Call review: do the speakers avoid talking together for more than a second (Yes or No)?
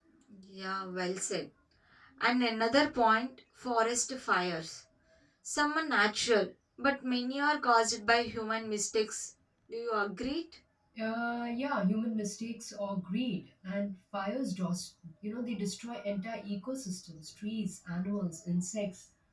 Yes